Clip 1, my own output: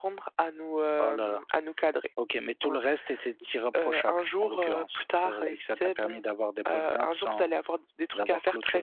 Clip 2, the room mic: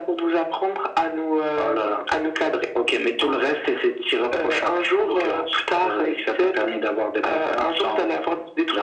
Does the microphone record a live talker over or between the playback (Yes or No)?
No